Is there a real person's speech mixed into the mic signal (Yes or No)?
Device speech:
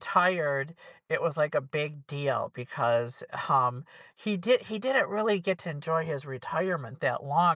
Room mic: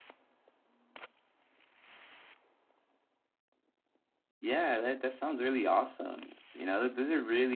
Yes